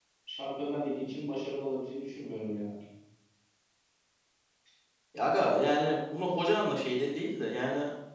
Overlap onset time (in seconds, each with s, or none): none